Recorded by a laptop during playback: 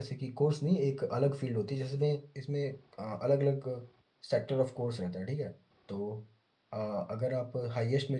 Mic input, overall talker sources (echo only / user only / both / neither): user only